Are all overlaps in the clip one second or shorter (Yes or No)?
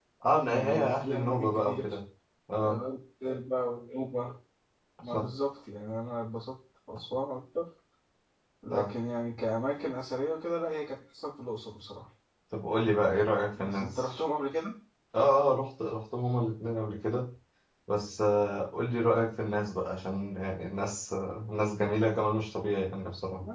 No